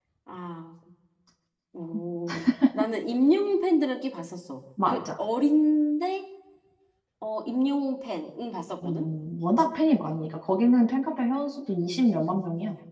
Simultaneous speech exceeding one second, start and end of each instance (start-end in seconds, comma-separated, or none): none